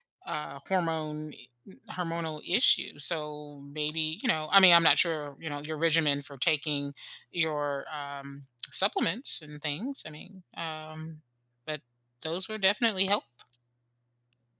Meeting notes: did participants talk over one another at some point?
No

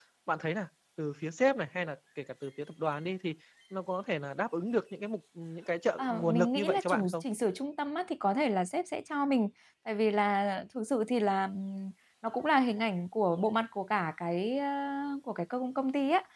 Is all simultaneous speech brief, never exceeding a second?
No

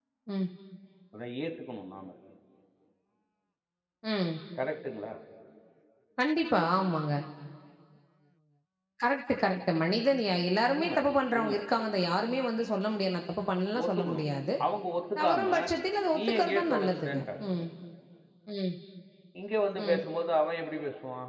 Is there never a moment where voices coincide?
No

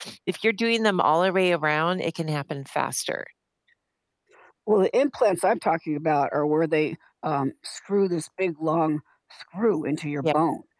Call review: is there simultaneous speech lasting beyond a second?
No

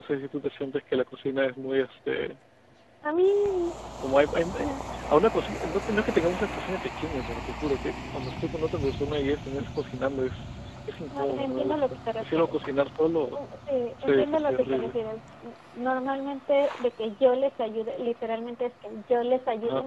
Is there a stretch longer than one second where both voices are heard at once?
Yes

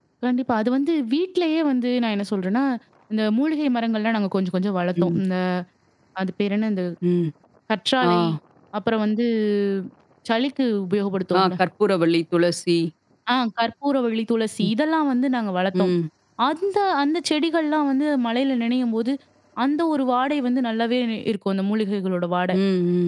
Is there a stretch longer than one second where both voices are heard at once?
No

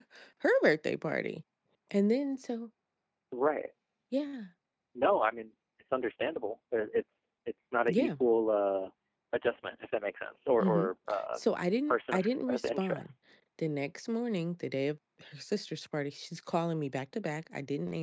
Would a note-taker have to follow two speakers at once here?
Yes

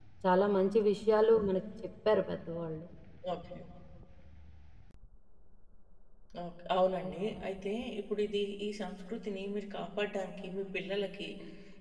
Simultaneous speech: No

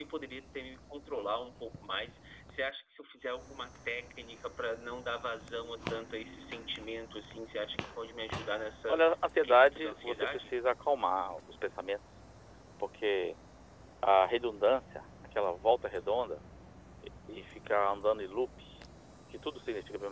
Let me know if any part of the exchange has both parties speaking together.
Yes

